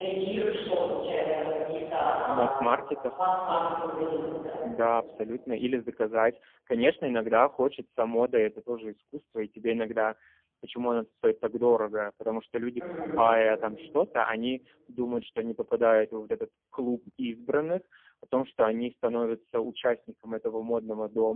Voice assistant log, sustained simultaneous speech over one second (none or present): none